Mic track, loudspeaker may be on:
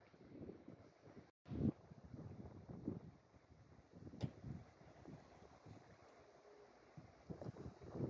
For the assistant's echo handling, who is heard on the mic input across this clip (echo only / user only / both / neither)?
neither